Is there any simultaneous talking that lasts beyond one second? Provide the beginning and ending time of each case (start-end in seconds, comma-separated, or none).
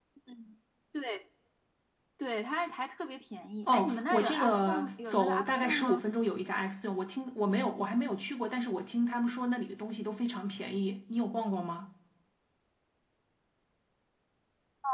3.7-6.0